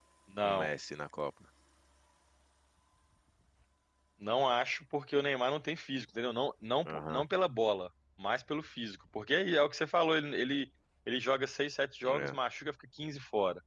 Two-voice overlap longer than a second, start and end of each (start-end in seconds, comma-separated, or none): none